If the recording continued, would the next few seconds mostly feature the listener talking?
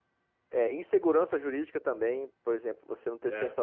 No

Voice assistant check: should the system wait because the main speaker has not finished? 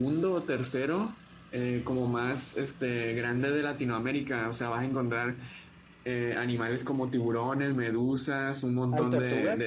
Yes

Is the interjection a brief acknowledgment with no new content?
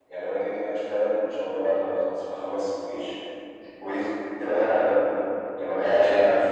Yes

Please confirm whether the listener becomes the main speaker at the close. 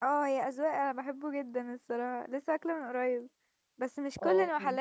No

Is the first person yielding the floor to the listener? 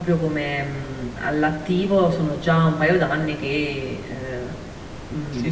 Yes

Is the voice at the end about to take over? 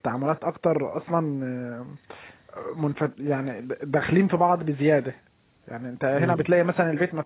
No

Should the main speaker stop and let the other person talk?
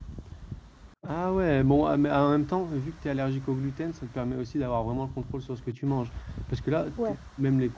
No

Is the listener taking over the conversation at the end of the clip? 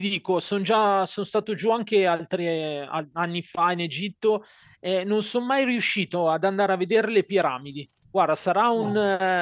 No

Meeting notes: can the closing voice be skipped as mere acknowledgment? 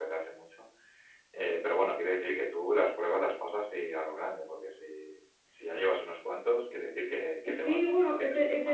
No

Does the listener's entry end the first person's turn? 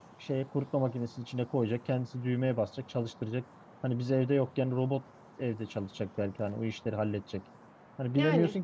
No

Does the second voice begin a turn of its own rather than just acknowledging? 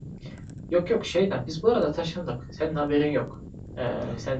No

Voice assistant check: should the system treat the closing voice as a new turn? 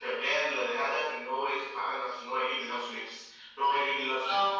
No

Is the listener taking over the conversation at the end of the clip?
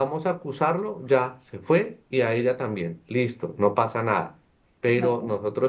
No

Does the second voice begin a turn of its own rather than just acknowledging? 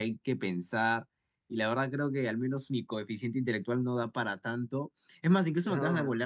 No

